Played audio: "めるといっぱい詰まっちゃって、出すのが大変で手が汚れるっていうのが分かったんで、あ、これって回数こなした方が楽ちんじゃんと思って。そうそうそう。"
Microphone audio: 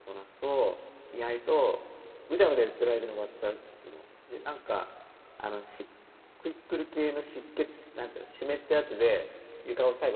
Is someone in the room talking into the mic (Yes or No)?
Yes